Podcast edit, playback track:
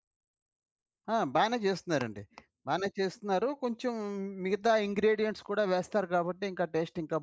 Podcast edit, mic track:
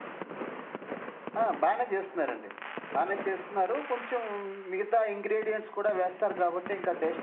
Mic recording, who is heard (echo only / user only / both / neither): echo only